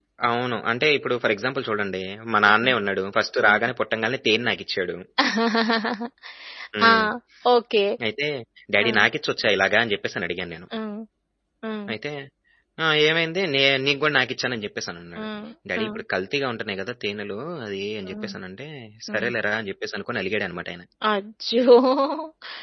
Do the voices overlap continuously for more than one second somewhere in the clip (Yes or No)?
No